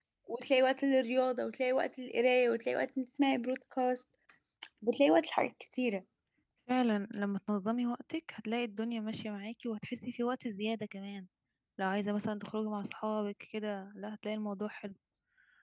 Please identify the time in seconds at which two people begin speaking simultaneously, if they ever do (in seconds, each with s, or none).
none